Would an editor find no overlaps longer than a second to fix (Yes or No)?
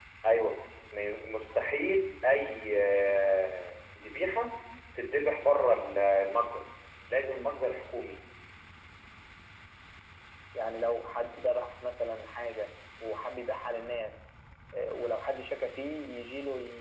Yes